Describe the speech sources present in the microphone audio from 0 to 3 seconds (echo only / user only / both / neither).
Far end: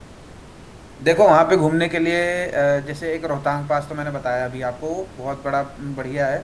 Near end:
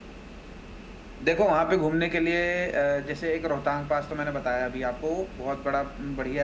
echo only